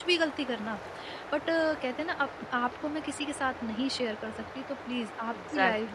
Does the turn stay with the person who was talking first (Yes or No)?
No